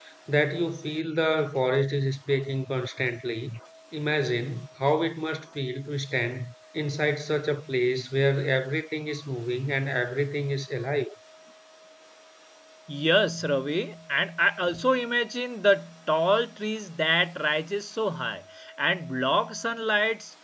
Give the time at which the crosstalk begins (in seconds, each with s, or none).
none